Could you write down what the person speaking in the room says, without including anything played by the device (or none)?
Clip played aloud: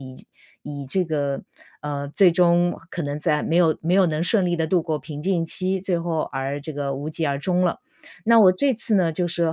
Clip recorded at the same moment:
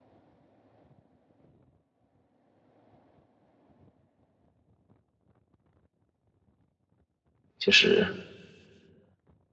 就是